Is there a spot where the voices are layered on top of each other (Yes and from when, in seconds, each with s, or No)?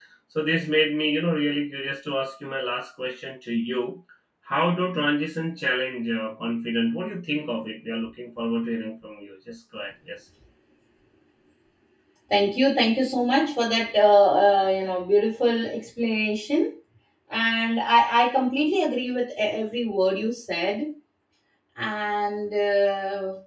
No